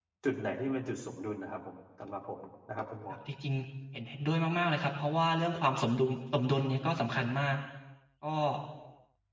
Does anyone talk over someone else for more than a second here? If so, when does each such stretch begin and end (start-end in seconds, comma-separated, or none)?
none